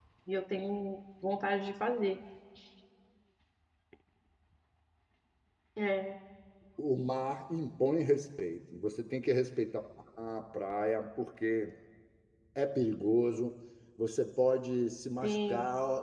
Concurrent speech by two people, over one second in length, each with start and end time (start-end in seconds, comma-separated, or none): none